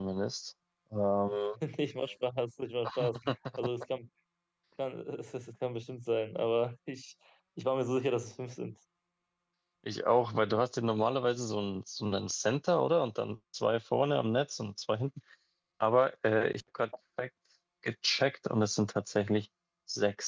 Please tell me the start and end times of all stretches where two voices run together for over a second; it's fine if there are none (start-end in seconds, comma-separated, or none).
none